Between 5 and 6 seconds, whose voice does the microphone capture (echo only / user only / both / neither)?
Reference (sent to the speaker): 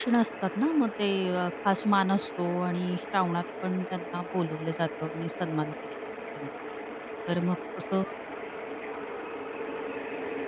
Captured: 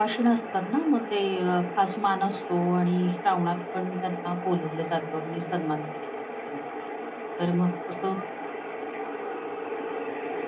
echo only